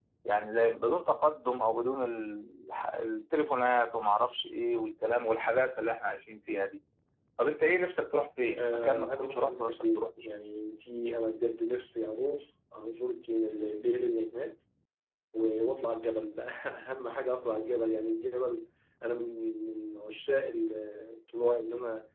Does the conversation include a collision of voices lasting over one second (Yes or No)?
Yes